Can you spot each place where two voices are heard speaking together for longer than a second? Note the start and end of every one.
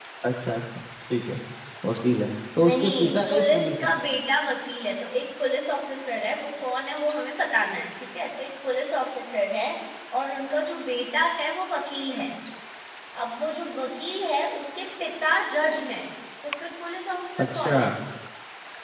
2.7-3.9

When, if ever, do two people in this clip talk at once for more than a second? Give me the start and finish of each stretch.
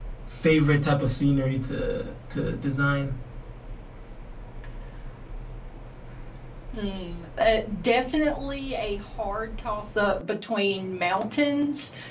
none

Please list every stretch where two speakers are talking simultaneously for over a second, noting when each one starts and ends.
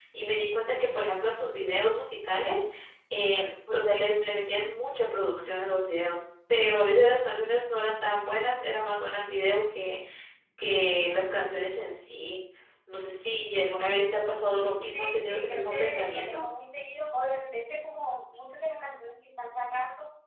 14.9-16.4

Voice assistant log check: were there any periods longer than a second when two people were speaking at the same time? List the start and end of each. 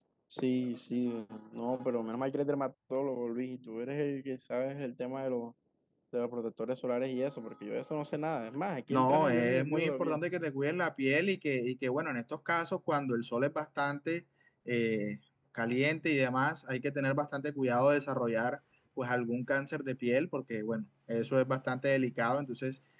8.9-10.2

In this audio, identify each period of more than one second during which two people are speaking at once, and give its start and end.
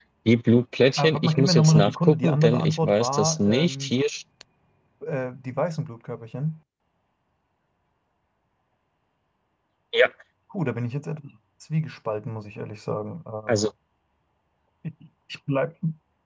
1.0-3.9

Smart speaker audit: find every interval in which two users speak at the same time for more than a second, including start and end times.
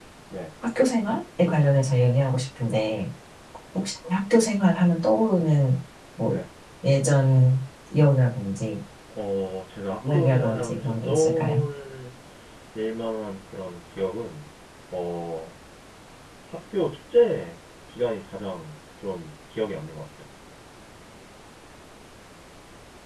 10.1-11.6

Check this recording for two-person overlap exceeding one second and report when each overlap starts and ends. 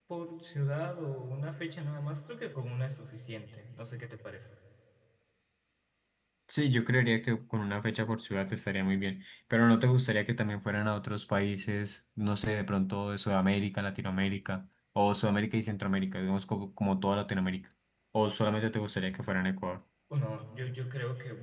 none

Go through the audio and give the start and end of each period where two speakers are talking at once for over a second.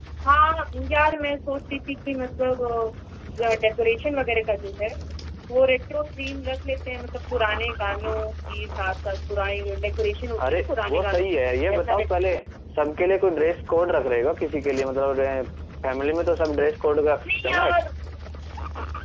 10.5-12.3

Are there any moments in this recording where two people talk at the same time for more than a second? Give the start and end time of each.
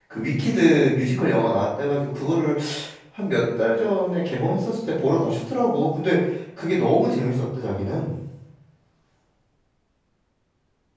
none

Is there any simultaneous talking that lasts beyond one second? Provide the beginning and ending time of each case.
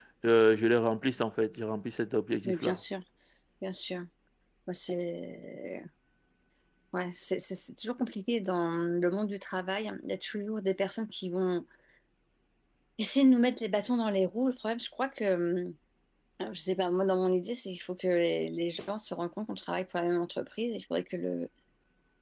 none

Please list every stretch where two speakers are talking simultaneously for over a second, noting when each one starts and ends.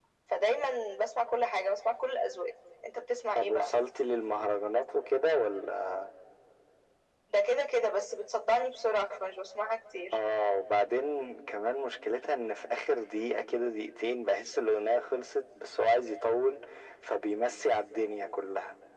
none

